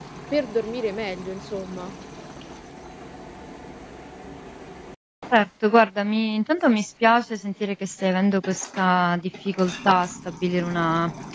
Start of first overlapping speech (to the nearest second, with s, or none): none